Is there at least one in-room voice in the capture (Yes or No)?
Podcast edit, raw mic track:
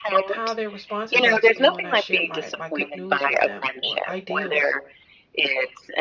Yes